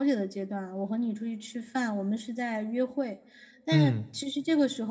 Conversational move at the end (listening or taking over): listening